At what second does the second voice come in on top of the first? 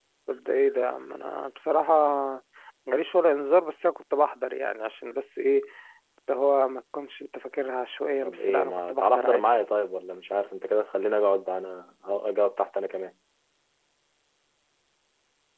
8.2 s

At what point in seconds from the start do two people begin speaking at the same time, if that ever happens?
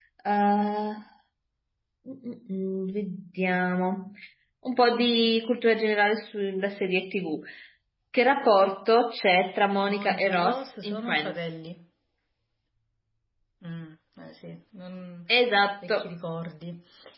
9.8 s

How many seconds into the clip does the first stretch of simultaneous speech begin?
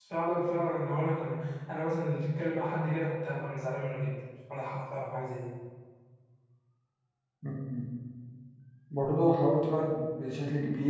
none

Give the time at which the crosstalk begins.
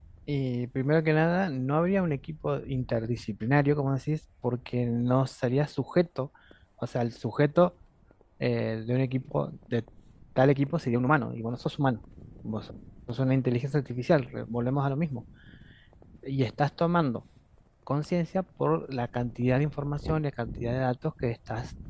none

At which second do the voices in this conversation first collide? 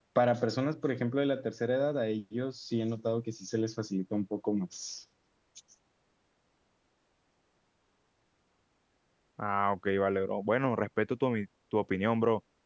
none

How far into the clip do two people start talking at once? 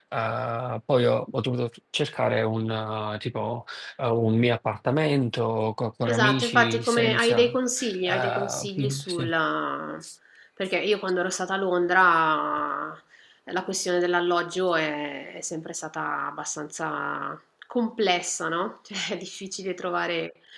6.0 s

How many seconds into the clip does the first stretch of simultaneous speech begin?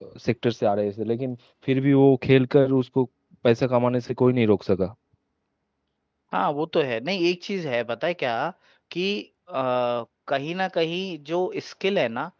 none

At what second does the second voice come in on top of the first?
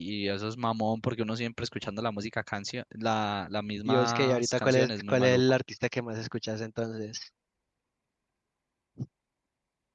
3.8 s

